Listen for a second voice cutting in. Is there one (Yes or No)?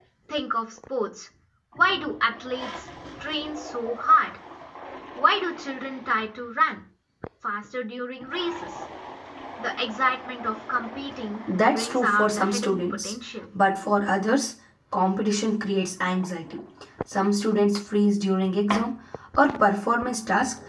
Yes